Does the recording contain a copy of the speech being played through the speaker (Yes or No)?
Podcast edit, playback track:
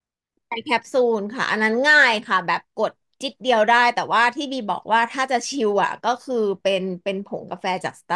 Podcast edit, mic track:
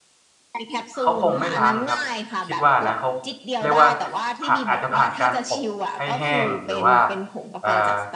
Yes